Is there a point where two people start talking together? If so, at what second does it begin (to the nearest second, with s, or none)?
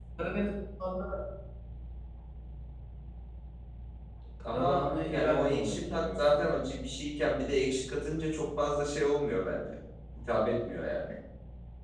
4 s